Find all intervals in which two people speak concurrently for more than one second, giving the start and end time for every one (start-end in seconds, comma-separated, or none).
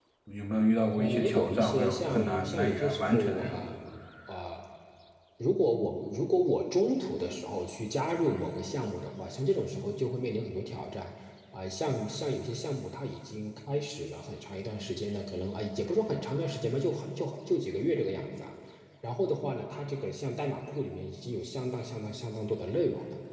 1.0-3.7